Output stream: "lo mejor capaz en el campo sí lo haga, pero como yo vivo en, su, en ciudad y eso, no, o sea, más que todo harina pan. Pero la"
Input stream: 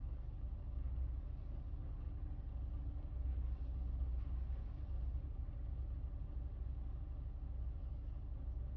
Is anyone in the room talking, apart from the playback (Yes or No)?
No